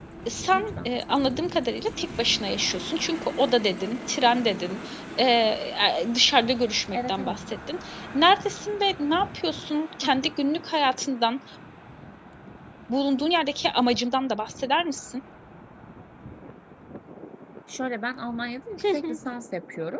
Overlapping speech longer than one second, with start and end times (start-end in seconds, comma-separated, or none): none